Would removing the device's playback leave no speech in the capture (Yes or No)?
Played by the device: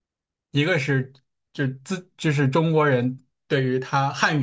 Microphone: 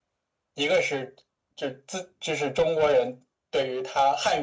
Yes